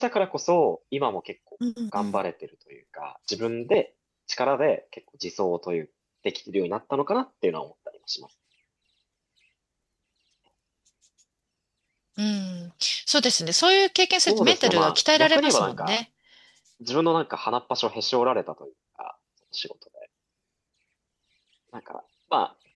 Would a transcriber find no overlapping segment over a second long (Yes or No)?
No